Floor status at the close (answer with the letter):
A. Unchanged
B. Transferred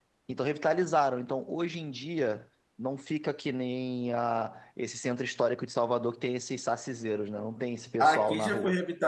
B